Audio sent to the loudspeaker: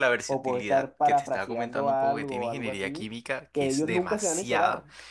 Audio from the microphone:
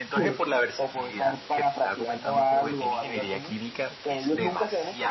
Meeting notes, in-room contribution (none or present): none